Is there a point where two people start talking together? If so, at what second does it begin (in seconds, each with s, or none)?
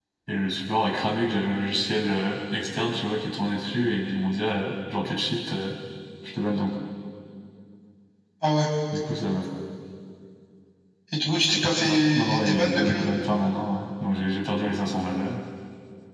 11.8 s